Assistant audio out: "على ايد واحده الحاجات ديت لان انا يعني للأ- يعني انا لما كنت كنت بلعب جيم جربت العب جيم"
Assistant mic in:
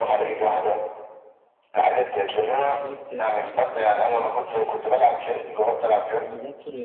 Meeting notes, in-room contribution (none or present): present